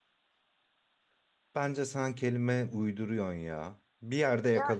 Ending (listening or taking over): listening